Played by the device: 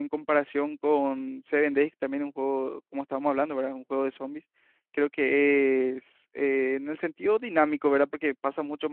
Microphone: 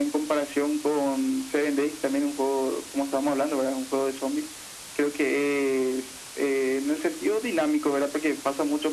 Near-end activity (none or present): none